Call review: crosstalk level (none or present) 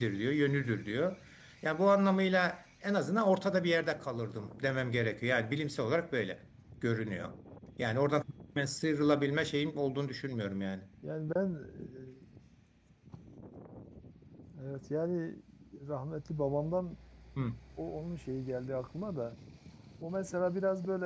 none